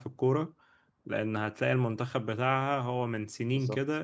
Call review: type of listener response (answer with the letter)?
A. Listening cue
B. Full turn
A